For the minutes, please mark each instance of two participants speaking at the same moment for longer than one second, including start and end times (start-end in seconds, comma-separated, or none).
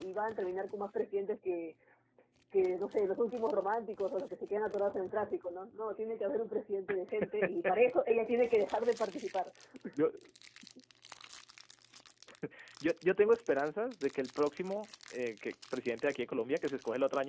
none